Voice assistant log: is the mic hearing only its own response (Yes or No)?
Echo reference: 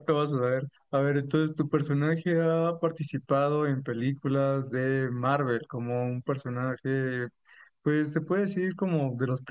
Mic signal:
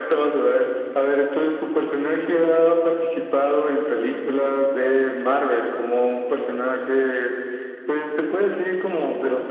Yes